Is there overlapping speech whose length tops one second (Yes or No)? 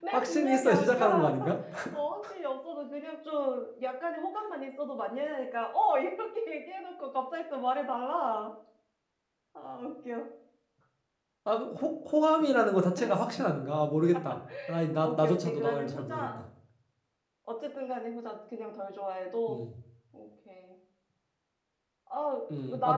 Yes